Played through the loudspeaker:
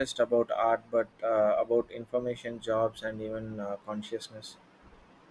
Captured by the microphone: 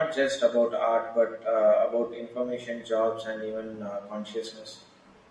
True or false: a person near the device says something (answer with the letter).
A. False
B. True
A